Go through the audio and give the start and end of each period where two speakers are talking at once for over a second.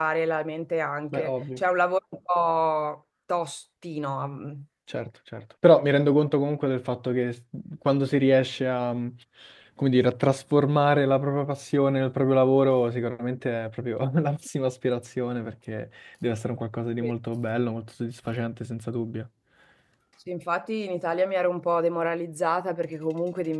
none

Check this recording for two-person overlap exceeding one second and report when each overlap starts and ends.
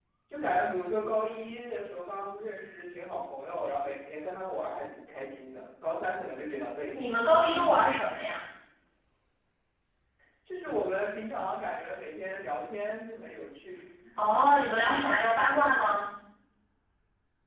none

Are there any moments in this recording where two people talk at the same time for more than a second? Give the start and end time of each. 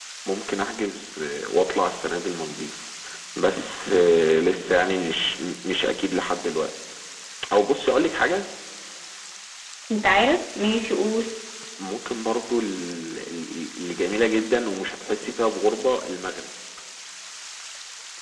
none

